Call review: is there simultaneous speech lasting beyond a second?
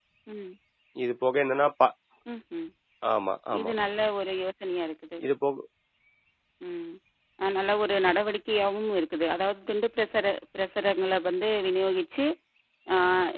No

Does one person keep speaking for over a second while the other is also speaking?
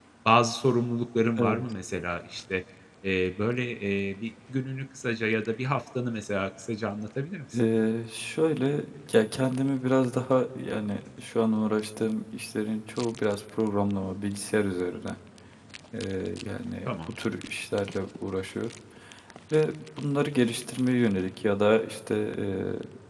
No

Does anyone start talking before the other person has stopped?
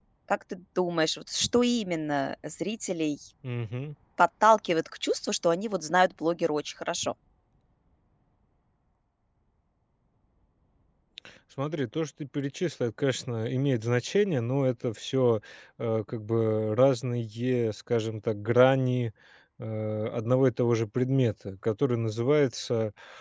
No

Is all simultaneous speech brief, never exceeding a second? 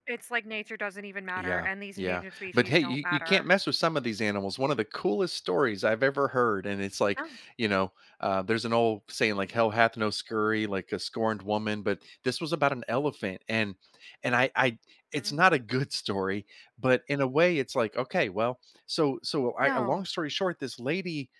No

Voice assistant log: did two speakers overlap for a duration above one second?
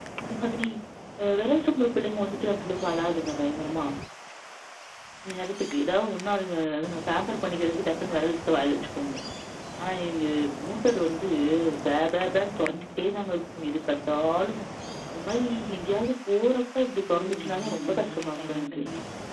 Yes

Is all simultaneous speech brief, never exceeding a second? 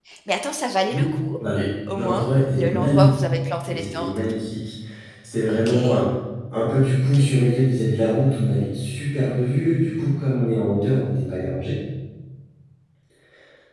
No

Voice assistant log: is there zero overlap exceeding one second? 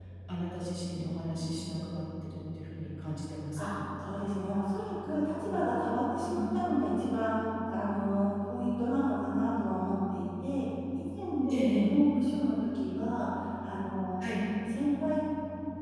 Yes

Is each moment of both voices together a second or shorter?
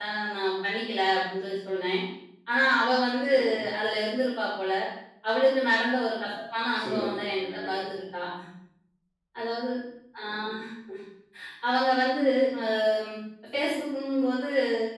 No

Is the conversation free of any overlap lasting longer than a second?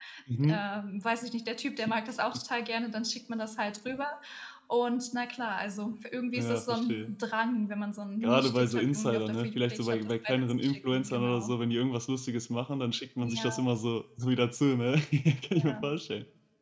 No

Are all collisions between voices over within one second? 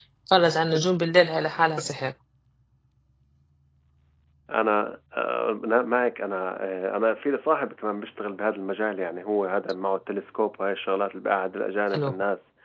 Yes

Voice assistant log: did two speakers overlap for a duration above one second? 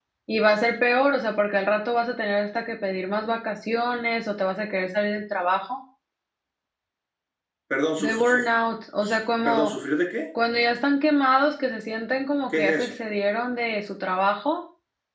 No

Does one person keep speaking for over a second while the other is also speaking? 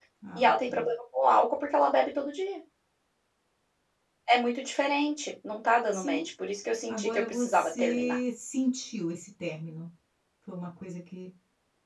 Yes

